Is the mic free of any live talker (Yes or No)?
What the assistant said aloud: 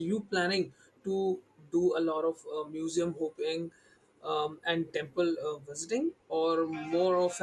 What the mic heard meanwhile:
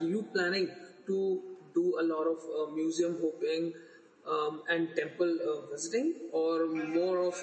Yes